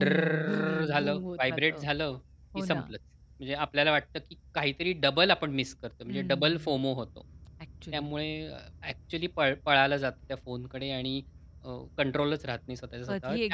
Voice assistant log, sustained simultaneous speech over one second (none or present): present